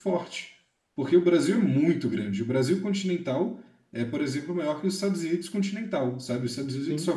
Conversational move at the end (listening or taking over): listening